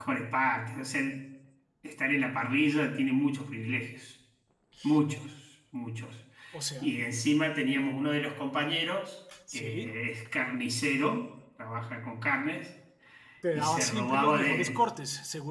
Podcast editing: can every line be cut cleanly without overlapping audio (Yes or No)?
No